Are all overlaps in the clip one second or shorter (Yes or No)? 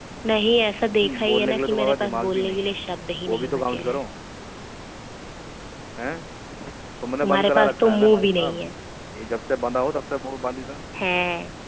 No